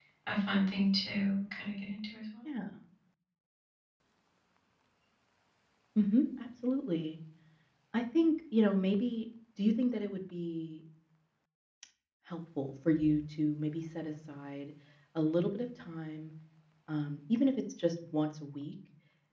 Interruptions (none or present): none